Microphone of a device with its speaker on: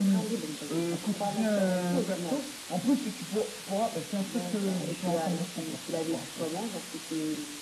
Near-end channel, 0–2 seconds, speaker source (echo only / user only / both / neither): echo only